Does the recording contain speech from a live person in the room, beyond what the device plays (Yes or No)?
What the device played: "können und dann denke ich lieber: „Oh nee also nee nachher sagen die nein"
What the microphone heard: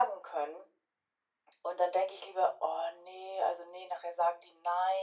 No